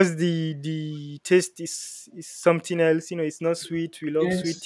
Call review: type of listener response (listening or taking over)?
listening